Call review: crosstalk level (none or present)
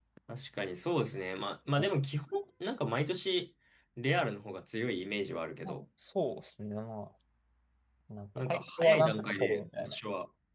present